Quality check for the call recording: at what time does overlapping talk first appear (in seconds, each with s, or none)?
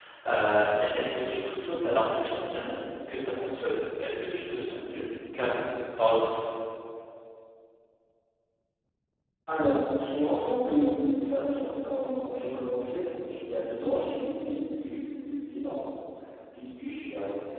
none